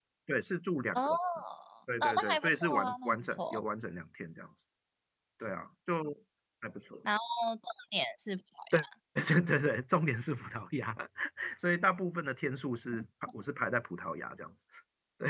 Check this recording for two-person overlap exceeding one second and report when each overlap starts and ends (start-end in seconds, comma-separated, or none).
2.0-3.6